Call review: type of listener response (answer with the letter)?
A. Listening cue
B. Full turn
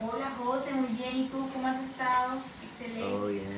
B